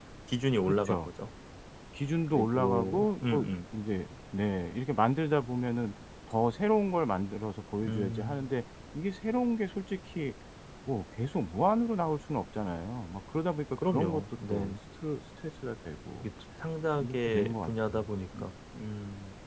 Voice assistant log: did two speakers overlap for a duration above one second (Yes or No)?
Yes